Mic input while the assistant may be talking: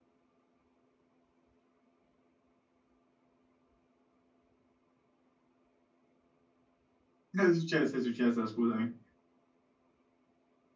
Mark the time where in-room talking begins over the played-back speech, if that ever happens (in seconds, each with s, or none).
7.3 s